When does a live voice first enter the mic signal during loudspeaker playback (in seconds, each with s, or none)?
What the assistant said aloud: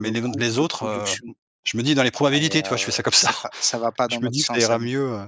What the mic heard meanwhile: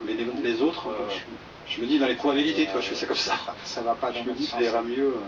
none